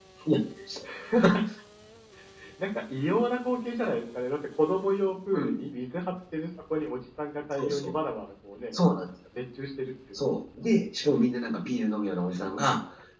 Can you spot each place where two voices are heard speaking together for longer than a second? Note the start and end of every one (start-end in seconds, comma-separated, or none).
none